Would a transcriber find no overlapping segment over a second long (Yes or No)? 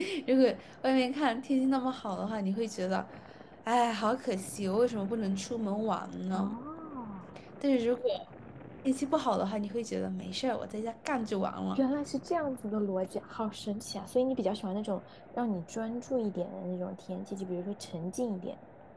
Yes